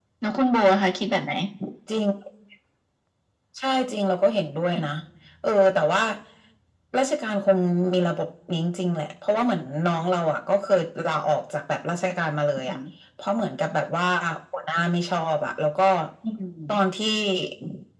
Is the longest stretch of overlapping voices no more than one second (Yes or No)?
Yes